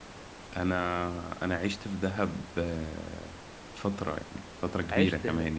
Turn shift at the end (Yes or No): No